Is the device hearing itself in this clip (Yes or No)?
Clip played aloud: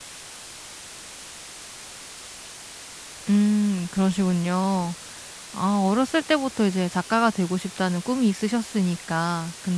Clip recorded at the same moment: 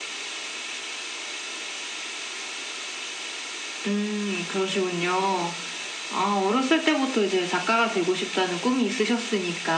Yes